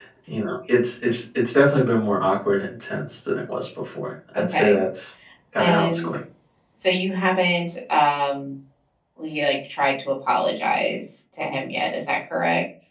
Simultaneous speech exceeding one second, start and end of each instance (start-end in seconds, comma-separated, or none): none